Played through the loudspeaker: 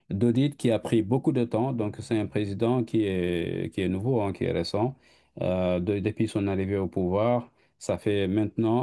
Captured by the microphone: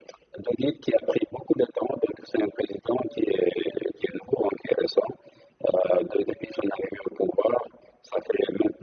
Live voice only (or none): none